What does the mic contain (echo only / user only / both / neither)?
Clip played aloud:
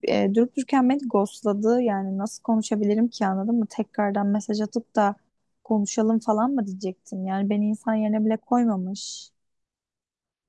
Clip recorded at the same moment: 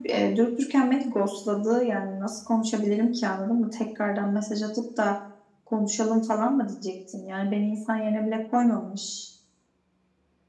echo only